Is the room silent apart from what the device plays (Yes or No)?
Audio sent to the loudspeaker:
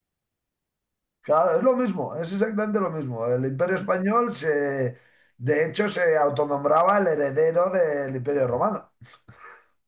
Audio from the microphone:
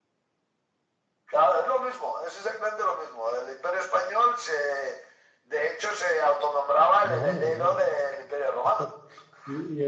No